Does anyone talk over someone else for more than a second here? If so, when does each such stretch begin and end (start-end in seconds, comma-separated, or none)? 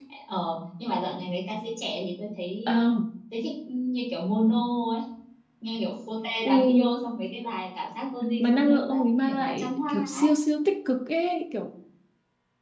8.4-10.3